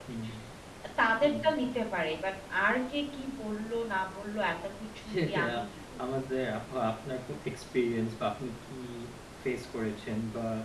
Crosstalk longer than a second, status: none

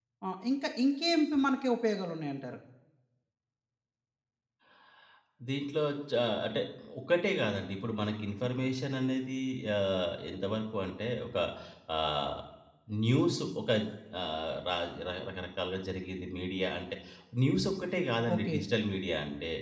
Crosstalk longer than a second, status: none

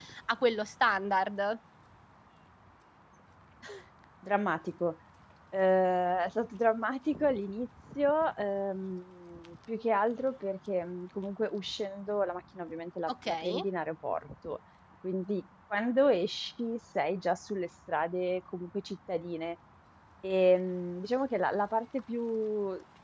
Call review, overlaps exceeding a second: none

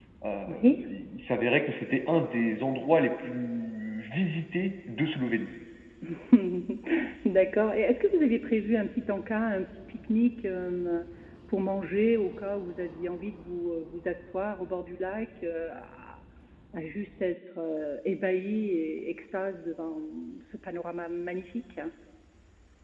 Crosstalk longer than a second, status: none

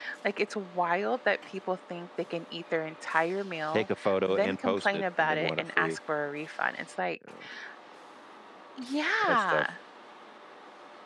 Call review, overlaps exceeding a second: present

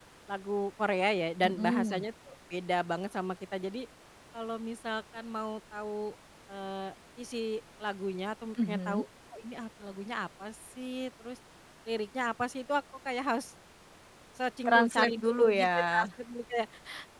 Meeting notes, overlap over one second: present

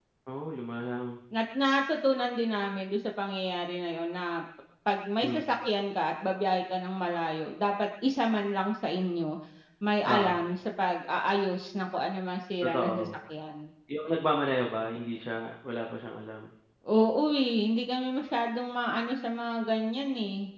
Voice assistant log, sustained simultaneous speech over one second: none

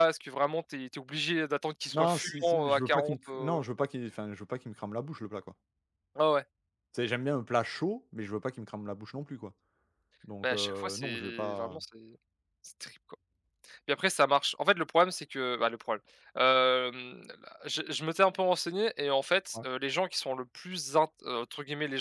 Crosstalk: present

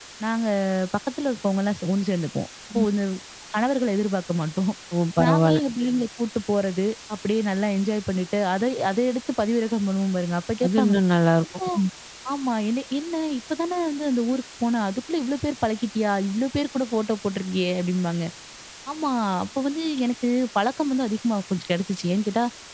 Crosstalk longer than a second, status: none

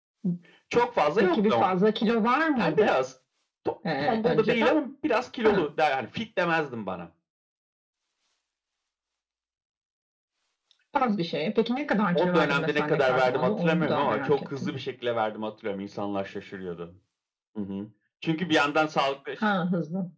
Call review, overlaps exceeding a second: present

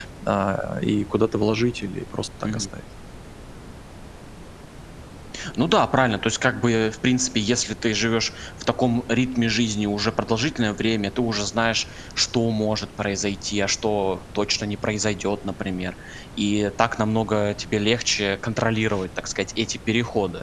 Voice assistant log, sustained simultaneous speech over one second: none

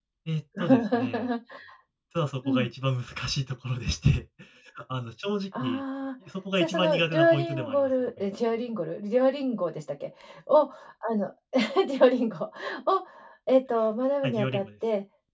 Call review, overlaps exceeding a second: present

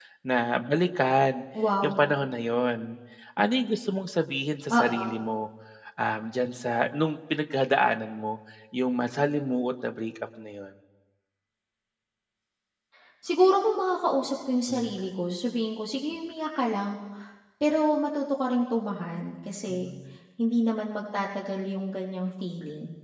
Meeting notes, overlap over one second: none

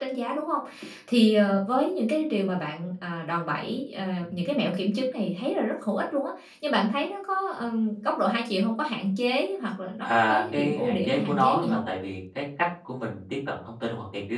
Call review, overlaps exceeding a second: present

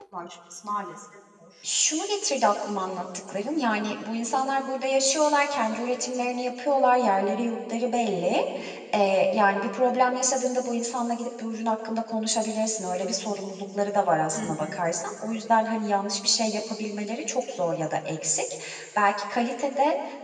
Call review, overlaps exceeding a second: none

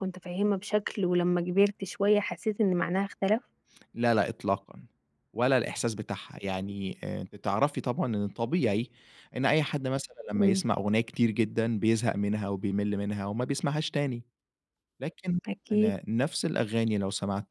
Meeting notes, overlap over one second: none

